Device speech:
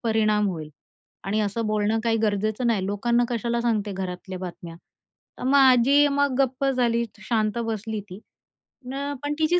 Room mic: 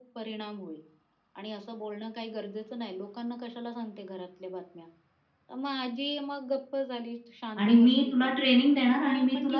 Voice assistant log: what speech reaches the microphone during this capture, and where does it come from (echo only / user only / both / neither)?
both